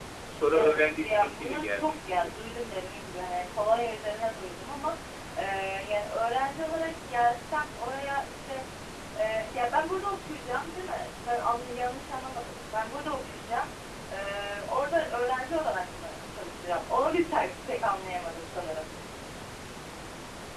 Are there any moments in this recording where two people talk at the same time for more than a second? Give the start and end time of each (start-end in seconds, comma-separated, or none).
0.6-2.4